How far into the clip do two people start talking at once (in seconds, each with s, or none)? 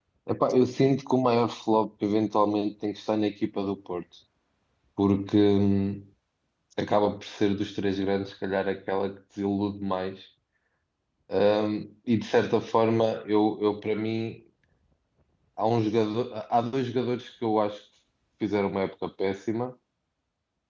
none